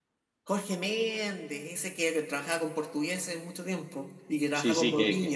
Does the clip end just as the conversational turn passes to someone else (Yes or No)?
Yes